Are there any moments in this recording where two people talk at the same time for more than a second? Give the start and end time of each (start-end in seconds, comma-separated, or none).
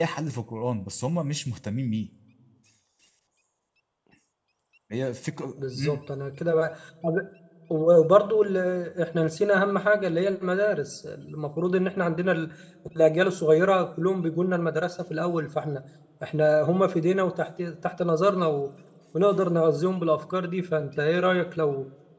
none